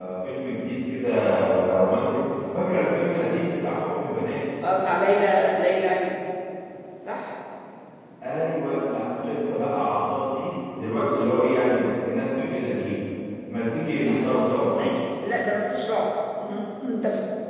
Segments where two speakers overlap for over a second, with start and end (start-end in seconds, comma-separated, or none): none